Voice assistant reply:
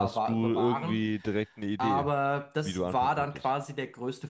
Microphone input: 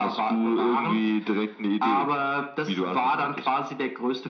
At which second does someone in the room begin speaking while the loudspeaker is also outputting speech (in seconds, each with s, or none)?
none